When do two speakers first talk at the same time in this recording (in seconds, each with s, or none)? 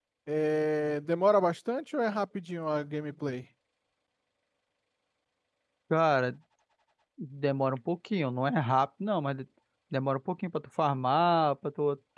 none